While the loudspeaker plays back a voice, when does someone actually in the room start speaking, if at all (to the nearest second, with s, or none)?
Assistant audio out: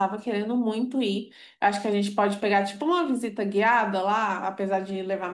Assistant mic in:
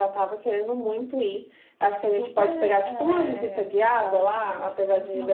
2 s